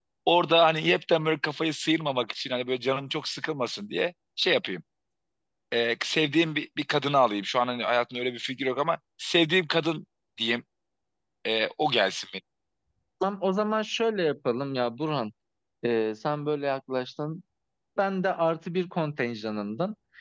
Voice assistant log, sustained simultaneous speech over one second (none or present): none